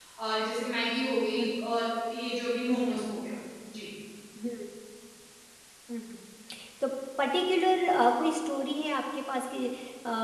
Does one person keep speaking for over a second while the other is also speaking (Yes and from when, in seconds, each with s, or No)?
No